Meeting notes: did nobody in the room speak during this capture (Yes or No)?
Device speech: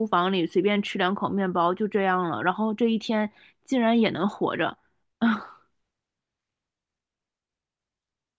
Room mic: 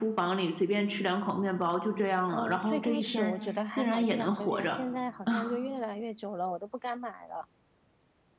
No